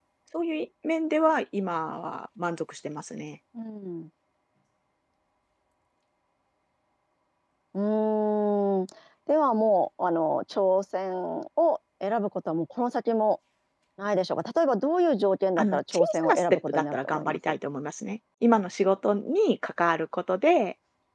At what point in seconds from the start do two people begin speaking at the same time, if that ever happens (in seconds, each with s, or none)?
15.6 s